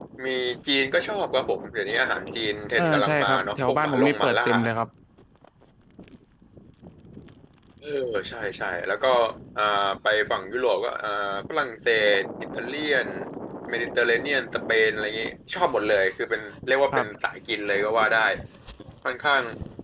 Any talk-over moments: Yes, from 2.8 s

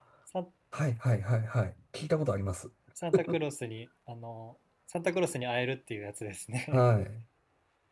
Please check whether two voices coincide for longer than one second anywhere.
No

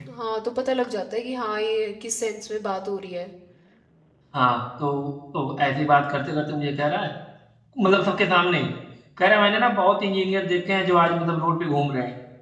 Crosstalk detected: No

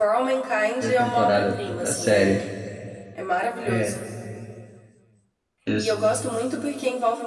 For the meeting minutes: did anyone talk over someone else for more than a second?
Yes, from 0.8 s

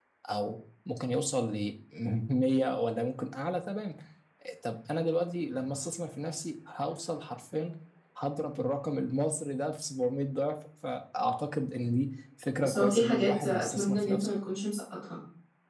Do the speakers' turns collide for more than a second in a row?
Yes, from 12.6 s

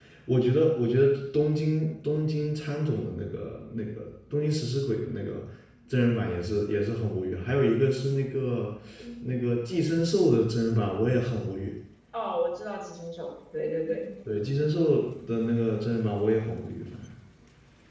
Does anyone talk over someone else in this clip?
No

